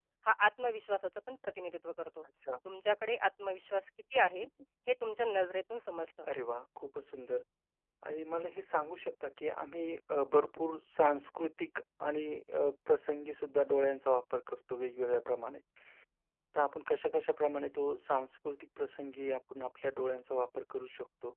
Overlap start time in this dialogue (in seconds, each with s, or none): none